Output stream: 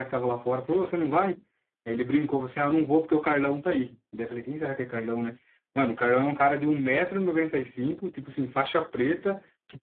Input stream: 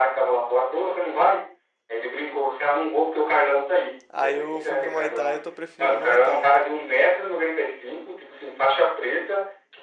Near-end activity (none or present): present